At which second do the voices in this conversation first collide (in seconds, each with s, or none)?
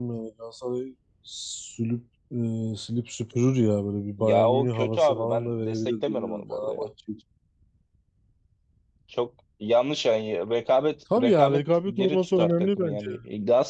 4.2 s